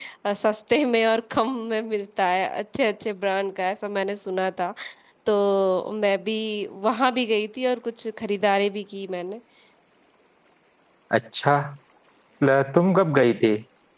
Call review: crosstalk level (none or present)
none